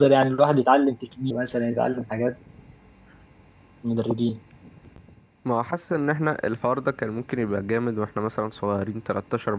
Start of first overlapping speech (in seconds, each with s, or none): none